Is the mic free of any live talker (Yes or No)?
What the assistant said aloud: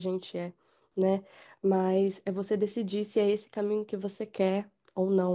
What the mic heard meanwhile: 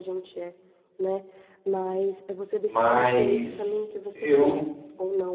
No